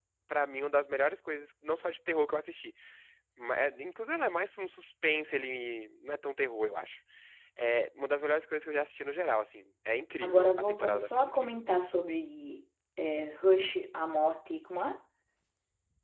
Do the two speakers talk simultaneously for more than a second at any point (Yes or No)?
Yes